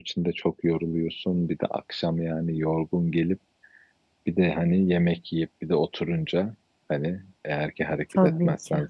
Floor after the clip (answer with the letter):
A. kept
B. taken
A